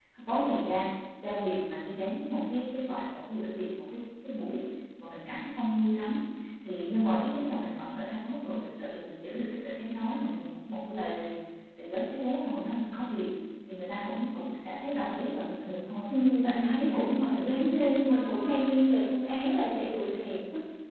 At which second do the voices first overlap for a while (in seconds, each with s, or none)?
16.1 s